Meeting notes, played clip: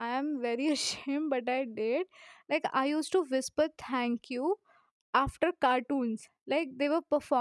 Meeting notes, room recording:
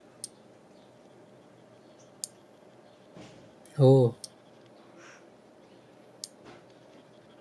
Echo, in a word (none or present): none